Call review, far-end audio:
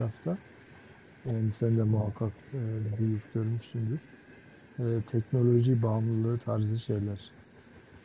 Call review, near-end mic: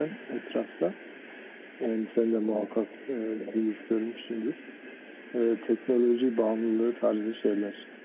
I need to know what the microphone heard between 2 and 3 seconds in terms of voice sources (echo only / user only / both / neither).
echo only